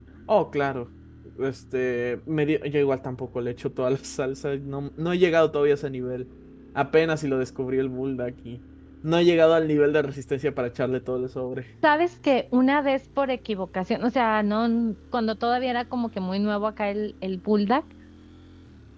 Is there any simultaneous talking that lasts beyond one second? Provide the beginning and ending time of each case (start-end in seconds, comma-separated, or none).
none